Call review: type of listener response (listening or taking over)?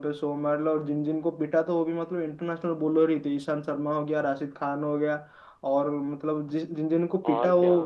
listening